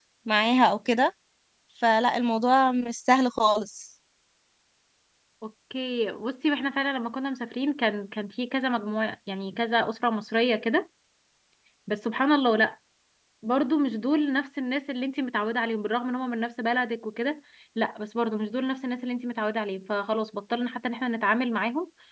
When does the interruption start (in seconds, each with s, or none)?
none